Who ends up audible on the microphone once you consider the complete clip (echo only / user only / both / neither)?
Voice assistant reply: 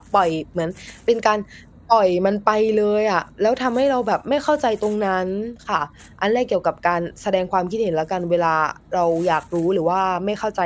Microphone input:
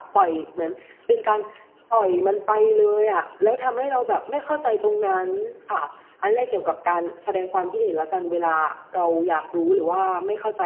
echo only